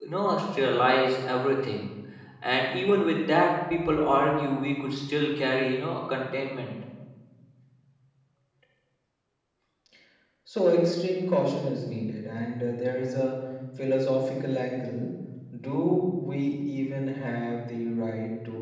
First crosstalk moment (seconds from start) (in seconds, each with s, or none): none